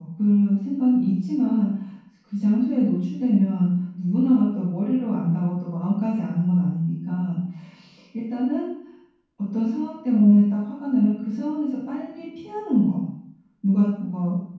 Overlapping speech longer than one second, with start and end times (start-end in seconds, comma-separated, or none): none